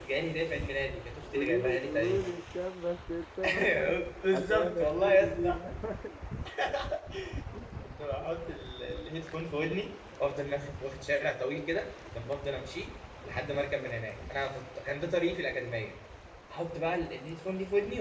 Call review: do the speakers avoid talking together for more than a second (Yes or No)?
No